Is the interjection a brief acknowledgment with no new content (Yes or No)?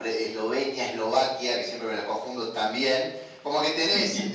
Yes